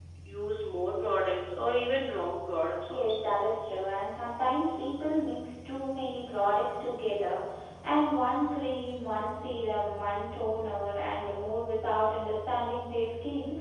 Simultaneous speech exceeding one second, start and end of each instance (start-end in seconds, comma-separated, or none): none